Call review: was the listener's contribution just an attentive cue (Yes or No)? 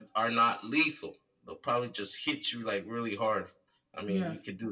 Yes